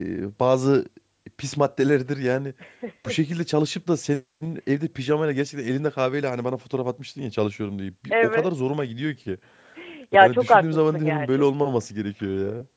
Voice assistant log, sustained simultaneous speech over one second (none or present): present